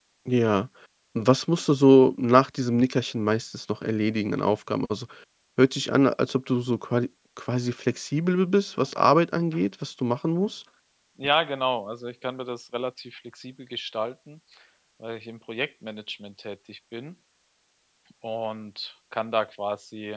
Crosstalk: none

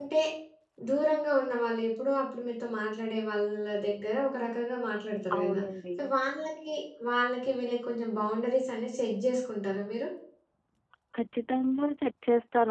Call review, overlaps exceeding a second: none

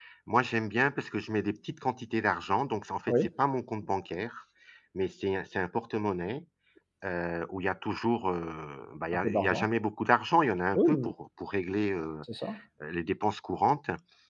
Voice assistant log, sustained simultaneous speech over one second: none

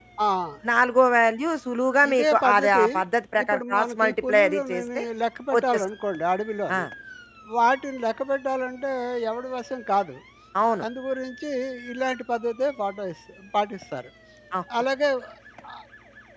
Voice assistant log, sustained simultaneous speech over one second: present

